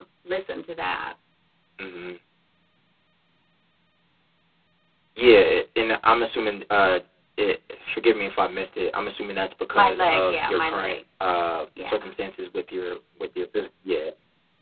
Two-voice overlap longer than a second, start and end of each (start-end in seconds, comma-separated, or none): 9.7-11.0